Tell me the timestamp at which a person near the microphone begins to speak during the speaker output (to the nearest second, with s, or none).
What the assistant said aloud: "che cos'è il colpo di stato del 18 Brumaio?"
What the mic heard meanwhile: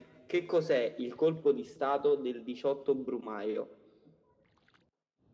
none